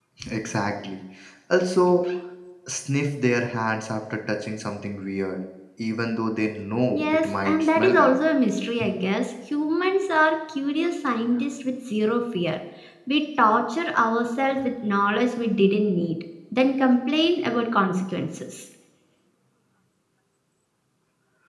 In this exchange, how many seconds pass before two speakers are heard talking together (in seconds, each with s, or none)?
6.9 s